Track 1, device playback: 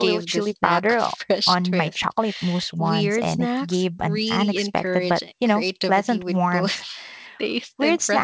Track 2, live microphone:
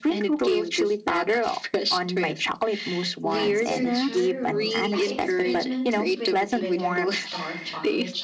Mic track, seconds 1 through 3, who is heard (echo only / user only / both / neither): echo only